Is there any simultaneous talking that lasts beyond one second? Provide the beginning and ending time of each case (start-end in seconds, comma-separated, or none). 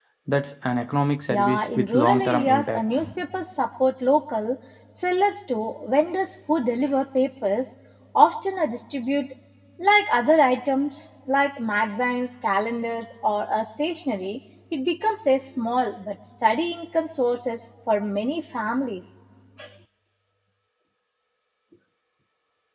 1.3-2.8